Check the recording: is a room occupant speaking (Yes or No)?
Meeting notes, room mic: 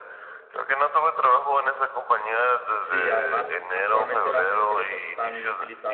Yes